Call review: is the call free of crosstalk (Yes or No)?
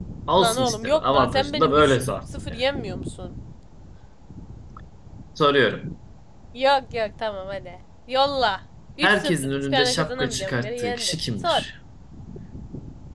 No